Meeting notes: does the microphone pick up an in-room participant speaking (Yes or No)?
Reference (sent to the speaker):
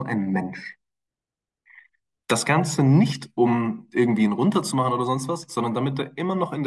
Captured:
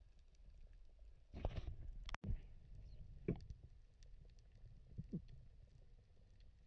No